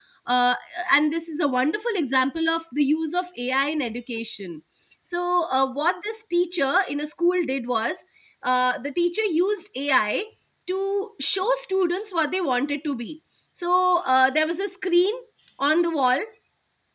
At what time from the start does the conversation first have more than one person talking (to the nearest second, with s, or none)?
none